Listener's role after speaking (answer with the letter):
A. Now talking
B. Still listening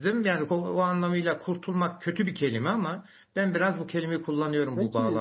A